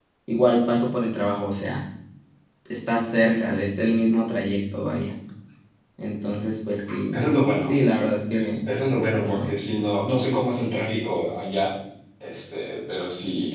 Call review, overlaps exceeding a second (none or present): none